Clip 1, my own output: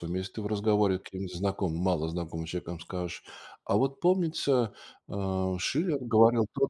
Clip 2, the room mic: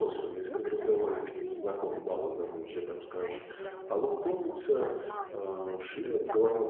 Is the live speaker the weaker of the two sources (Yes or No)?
Yes